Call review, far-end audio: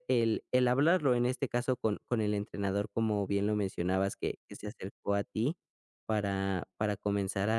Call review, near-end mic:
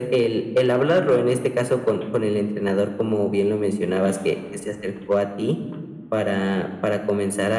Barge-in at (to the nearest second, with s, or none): none